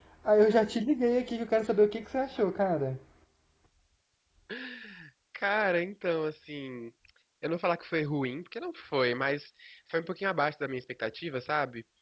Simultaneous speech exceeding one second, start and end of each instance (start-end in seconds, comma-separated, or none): none